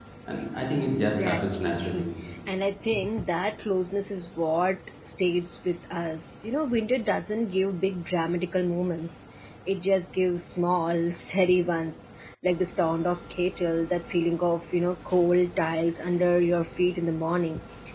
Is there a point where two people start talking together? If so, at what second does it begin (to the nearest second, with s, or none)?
1 s